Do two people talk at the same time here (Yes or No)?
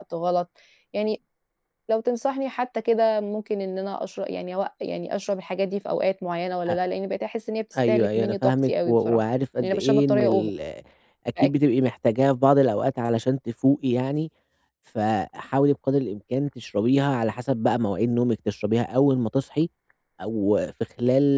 Yes